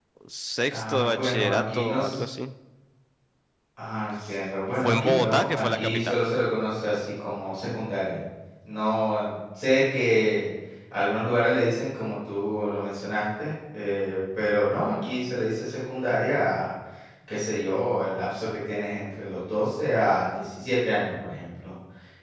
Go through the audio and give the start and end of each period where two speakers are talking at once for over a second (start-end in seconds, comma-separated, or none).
0.7-2.2, 4.8-6.2